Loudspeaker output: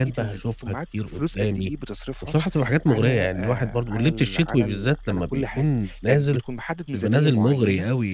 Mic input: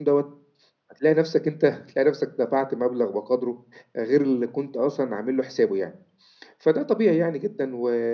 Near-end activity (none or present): present